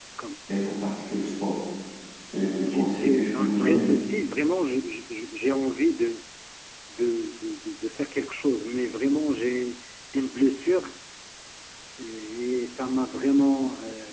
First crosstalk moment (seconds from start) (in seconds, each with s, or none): 2.6 s